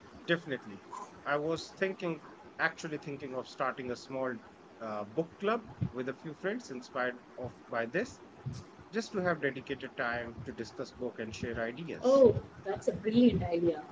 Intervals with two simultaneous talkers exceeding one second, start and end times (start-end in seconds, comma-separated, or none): none